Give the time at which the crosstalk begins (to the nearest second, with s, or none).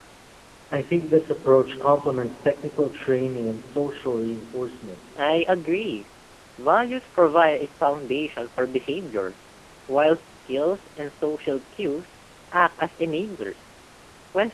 none